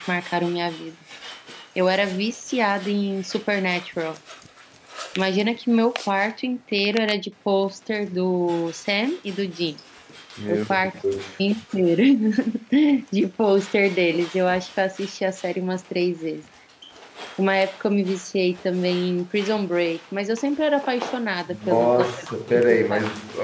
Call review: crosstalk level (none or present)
present